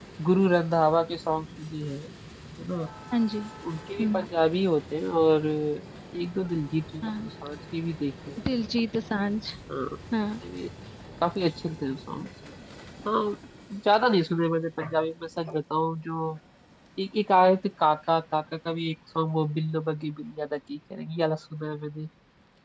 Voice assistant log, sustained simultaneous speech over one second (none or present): none